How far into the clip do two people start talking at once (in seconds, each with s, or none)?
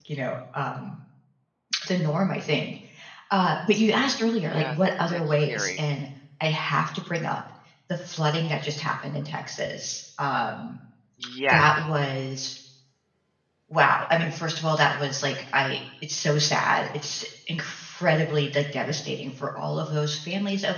4.5 s